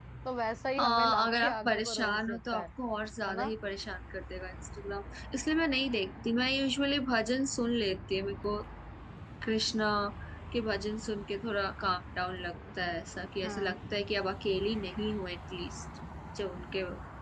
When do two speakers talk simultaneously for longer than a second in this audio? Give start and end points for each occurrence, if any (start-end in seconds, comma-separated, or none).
0.8-2.7